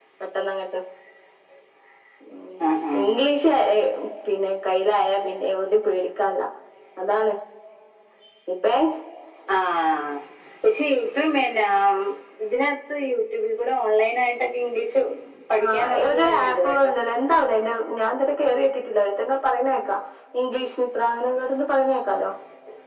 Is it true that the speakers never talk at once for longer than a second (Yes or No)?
No